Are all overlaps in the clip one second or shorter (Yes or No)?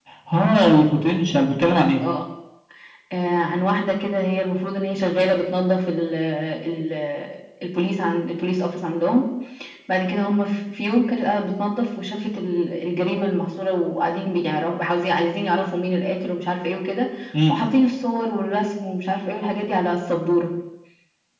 Yes